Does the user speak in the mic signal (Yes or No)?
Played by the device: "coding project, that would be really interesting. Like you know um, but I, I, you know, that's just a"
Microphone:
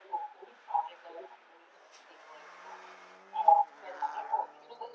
No